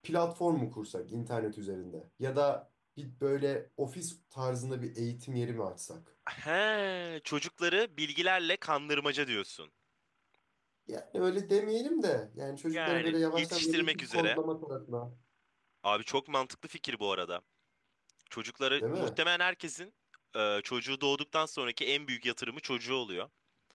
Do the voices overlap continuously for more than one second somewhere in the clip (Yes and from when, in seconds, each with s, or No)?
Yes, from 12.7 s